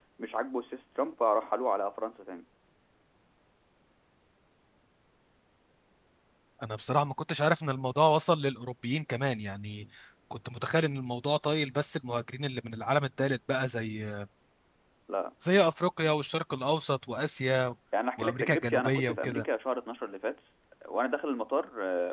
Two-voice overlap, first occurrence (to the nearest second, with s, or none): 18 s